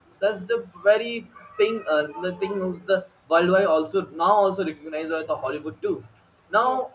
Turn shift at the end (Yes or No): No